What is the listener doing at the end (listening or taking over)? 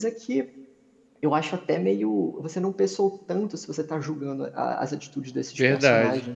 taking over